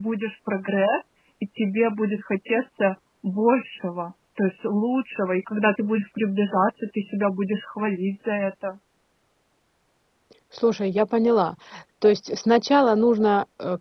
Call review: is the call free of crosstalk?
Yes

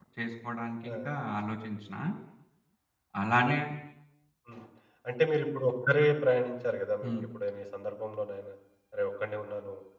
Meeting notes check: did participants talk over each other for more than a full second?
No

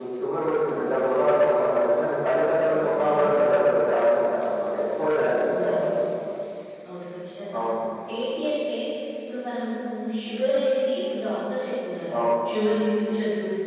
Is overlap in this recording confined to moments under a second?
Yes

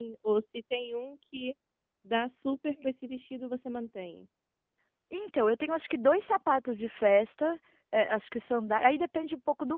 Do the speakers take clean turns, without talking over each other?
Yes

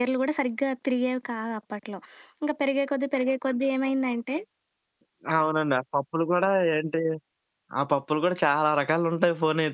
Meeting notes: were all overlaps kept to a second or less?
Yes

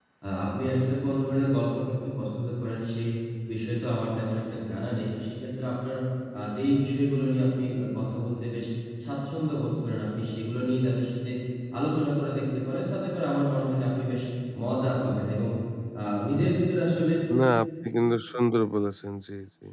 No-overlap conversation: Yes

